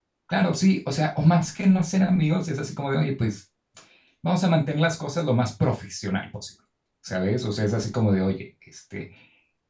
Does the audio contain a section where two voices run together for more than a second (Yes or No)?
No